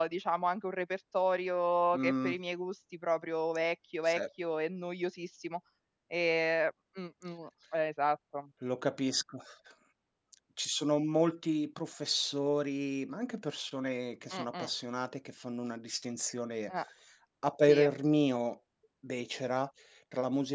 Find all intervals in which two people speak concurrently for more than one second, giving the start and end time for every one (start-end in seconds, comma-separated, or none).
none